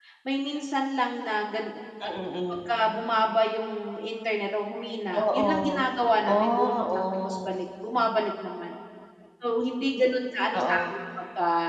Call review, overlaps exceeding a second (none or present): present